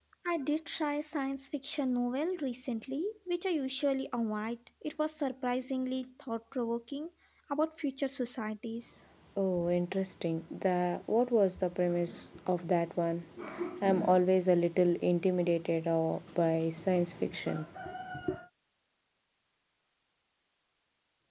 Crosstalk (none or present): none